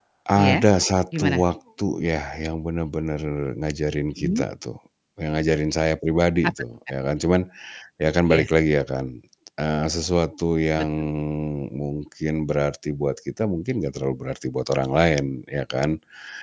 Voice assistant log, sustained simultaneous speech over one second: none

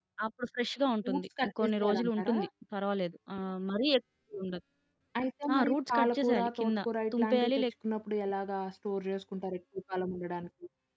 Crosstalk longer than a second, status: present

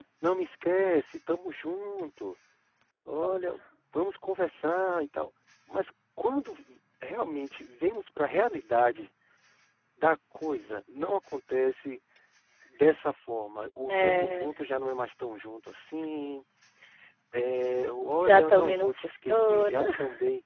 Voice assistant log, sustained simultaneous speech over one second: present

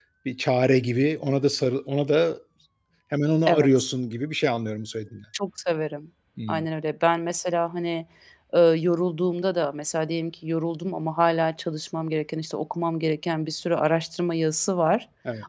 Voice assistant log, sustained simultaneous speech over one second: none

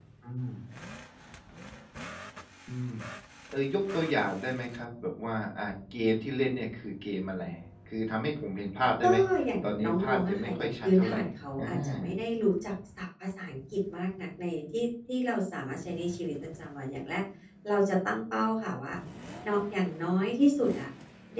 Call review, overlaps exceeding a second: present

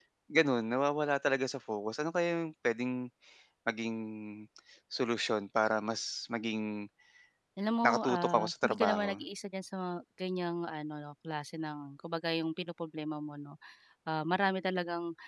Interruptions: present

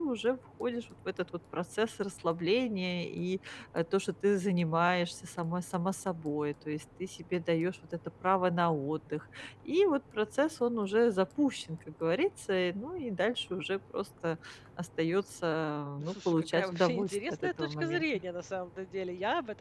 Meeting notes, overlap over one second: present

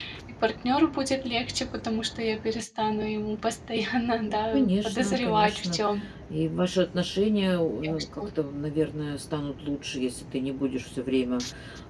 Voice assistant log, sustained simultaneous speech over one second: present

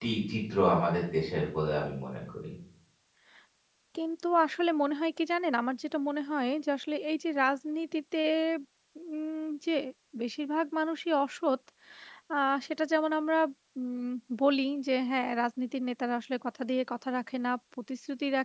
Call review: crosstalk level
none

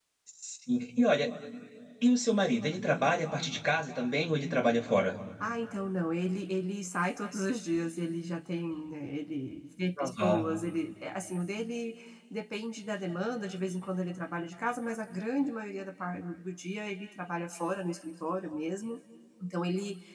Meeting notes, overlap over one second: none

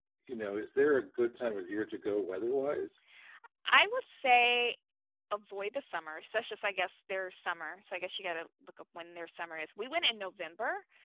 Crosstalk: none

